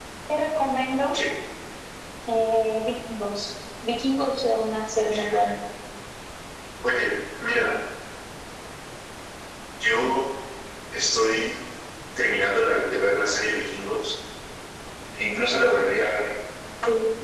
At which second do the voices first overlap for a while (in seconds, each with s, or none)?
none